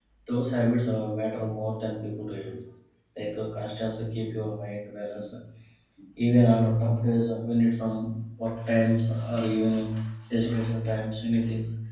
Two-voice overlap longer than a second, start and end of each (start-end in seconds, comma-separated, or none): none